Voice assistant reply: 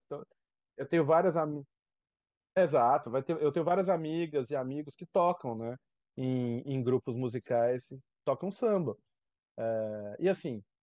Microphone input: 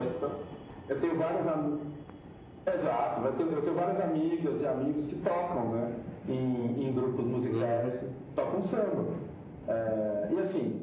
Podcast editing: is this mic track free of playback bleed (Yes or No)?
No